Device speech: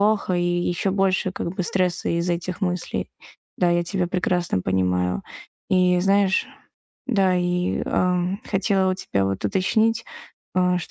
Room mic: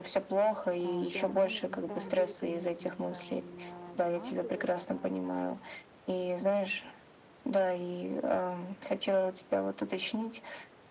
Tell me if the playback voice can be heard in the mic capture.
Yes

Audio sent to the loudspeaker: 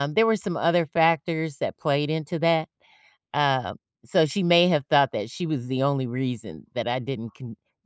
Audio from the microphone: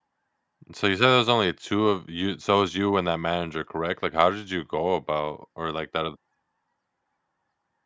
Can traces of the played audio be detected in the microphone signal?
No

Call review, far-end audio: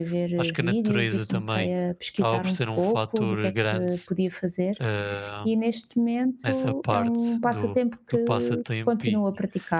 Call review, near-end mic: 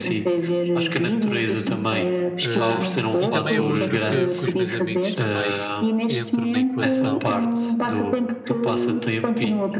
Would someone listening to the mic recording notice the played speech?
Yes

